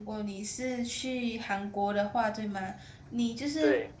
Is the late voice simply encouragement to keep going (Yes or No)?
Yes